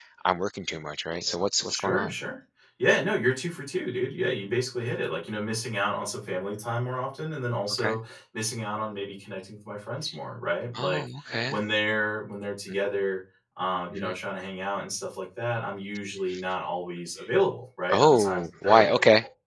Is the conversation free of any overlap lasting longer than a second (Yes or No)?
No